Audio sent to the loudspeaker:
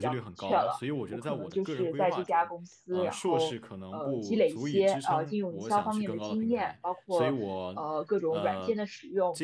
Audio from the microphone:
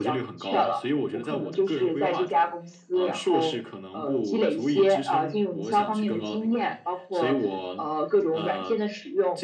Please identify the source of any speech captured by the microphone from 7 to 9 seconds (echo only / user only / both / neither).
echo only